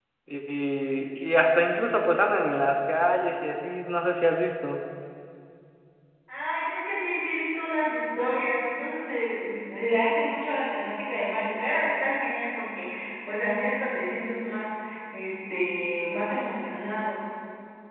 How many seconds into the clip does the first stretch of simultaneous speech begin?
none

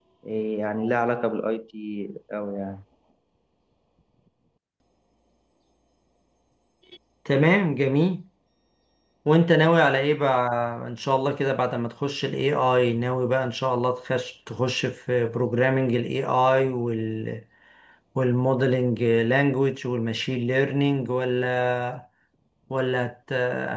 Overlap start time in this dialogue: none

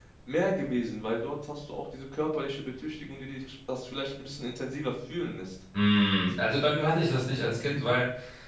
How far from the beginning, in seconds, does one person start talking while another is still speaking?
none

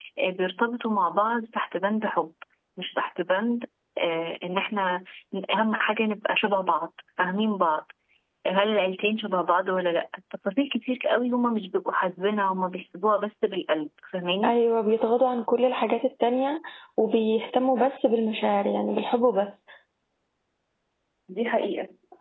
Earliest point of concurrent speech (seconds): none

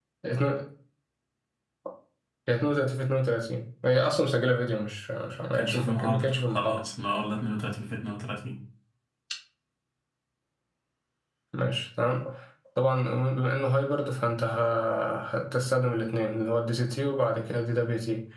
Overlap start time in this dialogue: 6 s

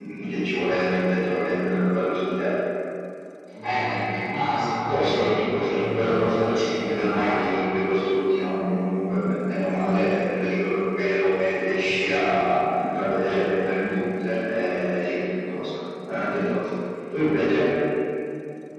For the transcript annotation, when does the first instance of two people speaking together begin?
5 s

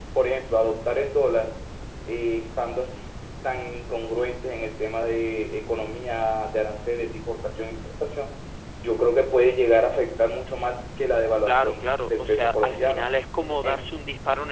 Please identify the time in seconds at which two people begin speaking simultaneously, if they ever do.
11 s

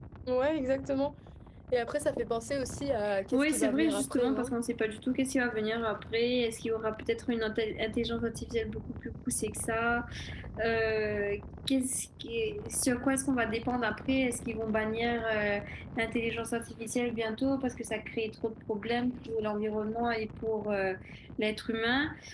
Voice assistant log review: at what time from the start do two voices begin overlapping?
3 s

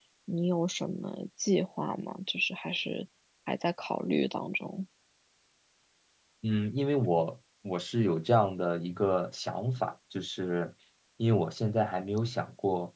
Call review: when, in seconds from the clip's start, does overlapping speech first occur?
none

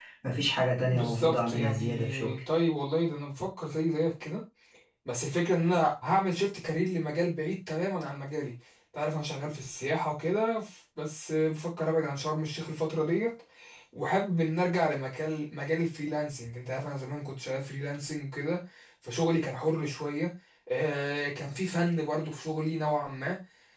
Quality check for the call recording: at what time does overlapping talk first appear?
1 s

